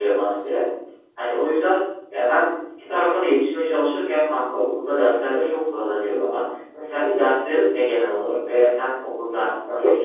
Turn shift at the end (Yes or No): Yes